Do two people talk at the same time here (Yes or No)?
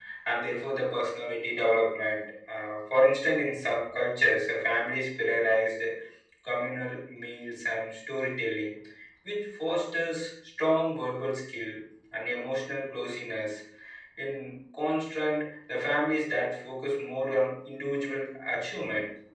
No